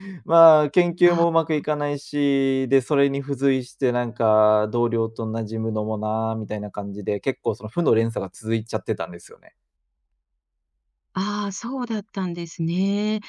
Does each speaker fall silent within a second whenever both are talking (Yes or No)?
Yes